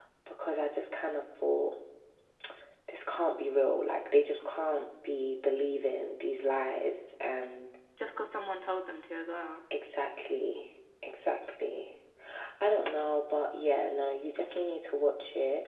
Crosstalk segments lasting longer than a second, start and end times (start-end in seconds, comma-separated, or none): none